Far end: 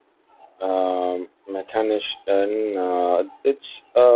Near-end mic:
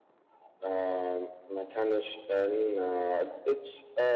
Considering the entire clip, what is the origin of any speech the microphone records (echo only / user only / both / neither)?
echo only